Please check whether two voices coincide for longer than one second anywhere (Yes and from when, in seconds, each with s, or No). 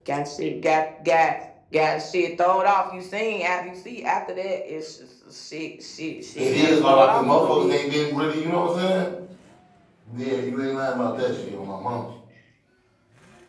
Yes, from 6.4 s